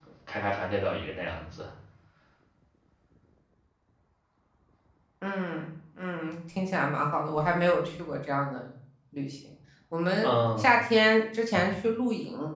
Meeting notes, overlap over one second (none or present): none